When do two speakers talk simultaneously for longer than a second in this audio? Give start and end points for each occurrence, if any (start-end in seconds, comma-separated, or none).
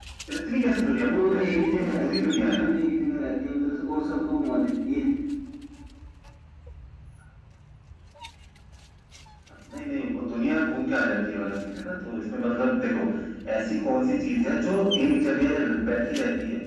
1.0-2.7